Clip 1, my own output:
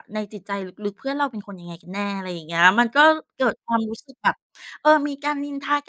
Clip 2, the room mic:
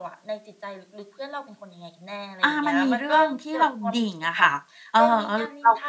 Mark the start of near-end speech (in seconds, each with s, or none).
2.4 s